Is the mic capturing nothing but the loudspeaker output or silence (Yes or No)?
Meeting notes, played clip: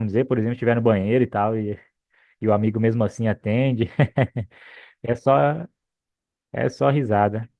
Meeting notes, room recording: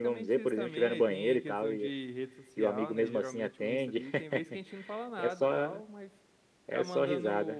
No